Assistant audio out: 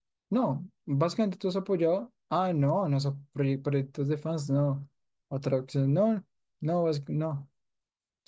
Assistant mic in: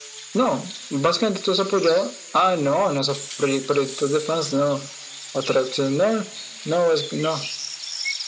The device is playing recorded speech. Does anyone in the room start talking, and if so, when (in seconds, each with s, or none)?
none